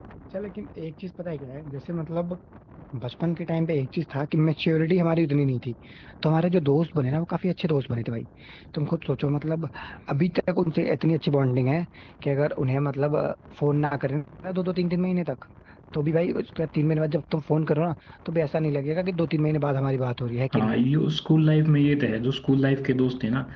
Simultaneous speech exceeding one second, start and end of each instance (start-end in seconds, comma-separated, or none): none